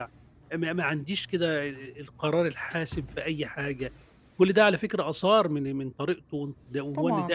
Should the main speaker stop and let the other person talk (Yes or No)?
Yes